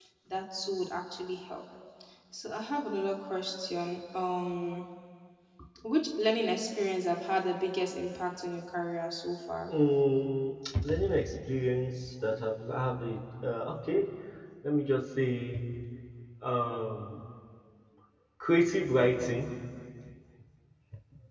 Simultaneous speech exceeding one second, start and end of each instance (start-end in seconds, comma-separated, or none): none